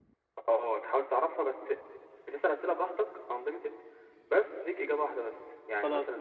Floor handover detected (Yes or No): No